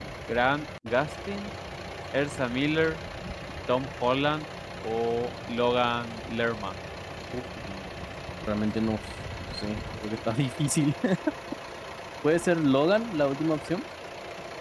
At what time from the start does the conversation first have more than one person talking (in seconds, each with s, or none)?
none